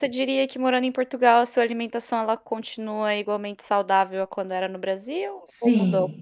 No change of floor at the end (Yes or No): No